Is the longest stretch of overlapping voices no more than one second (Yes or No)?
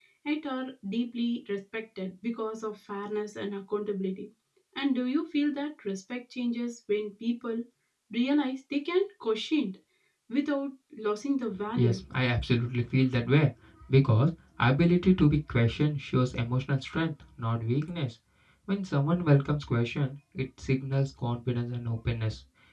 Yes